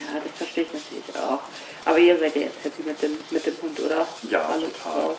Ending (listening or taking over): taking over